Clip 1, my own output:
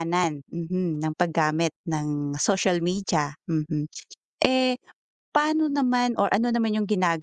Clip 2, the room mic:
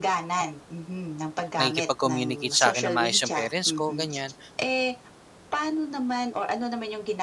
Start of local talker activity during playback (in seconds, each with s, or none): 1.6 s